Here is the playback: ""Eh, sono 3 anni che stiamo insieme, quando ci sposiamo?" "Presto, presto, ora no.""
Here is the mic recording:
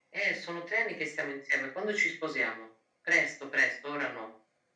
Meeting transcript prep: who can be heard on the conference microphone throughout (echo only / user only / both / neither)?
echo only